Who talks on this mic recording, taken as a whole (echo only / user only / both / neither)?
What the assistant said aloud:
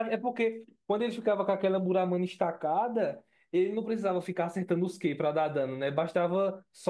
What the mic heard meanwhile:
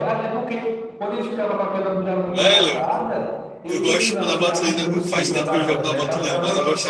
both